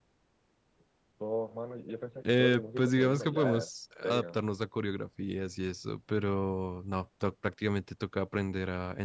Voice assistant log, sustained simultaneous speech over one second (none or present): present